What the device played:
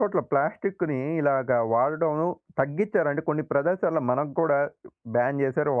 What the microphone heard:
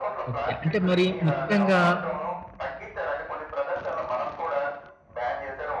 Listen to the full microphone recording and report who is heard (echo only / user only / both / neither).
both